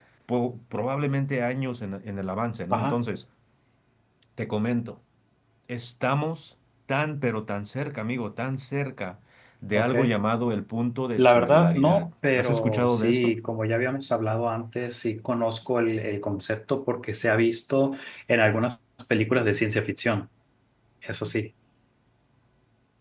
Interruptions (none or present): present